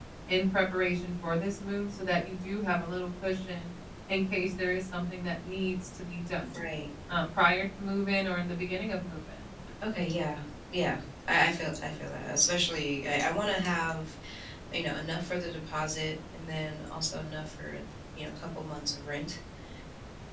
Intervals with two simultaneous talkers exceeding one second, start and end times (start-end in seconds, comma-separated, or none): none